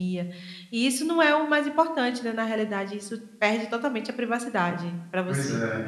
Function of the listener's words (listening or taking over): taking over